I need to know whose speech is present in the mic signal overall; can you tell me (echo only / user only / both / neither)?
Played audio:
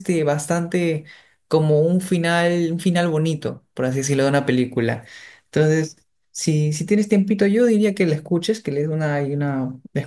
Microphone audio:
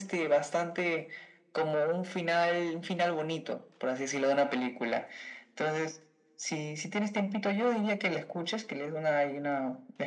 echo only